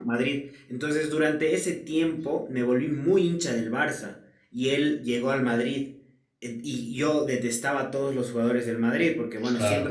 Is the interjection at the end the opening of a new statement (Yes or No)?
No